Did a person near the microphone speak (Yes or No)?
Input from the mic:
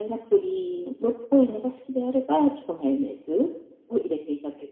No